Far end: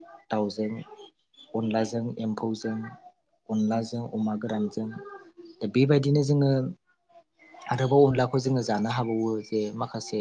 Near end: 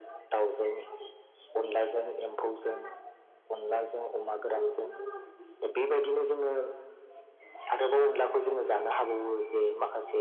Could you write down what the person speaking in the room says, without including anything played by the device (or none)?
none